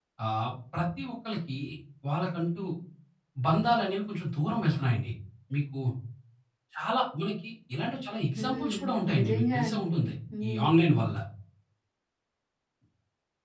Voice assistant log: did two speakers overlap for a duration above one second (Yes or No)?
Yes